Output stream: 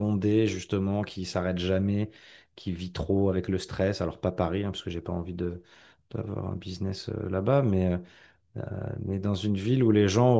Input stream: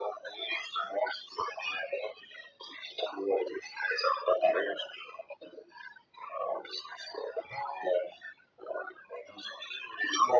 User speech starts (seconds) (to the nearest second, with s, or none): none